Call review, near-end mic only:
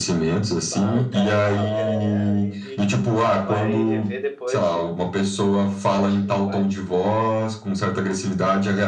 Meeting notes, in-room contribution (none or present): present